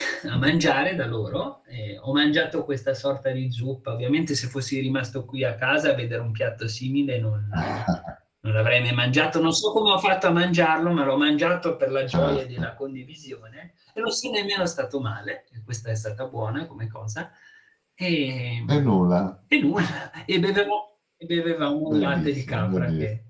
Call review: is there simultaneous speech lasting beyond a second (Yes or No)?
Yes